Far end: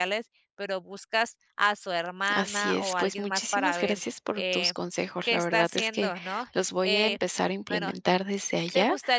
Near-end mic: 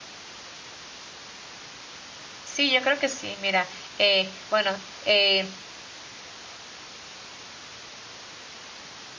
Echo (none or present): none